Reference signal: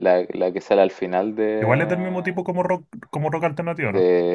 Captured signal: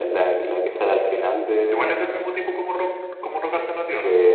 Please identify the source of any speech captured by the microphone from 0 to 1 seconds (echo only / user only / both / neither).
echo only